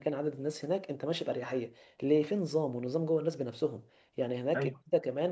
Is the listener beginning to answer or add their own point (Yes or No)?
No